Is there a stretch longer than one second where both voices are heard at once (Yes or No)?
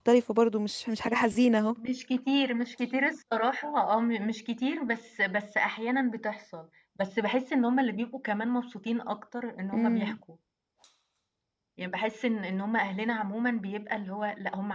No